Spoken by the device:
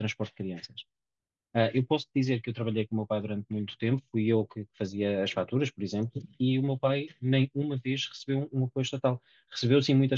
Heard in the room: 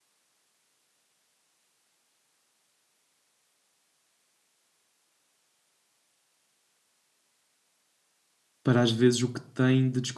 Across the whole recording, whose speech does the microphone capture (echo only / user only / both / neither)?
user only